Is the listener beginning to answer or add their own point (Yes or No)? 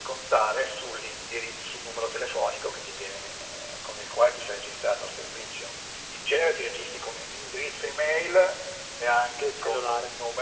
No